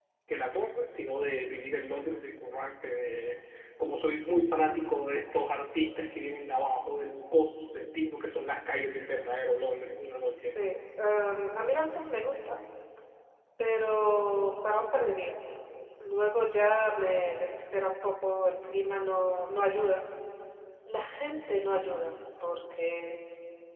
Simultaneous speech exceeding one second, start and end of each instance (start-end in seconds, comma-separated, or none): none